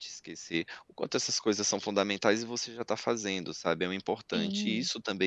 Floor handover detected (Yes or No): No